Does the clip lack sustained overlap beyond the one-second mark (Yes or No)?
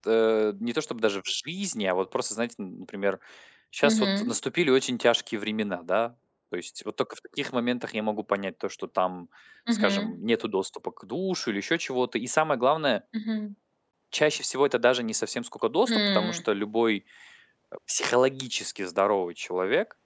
Yes